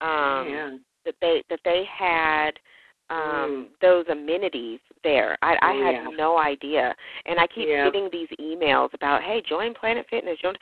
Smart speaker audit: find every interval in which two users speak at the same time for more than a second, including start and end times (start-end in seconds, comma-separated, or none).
none